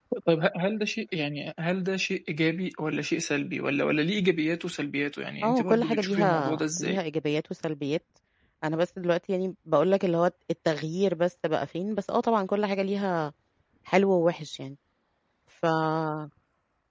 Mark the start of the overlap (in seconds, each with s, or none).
5.4 s